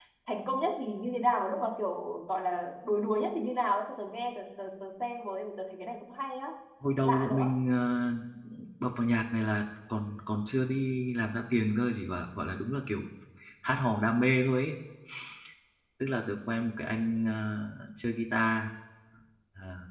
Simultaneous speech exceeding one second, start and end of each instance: none

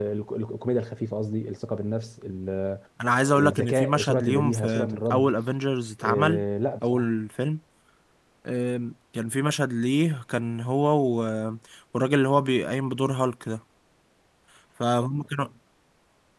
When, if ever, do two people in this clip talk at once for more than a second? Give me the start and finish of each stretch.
3.4-5.3

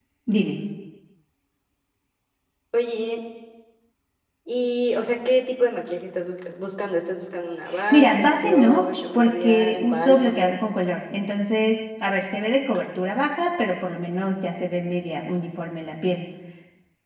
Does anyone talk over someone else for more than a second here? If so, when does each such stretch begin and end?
7.9-10.5

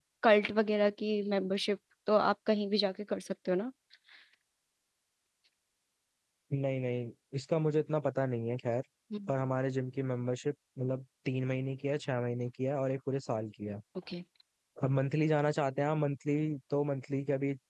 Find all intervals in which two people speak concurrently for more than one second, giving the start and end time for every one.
none

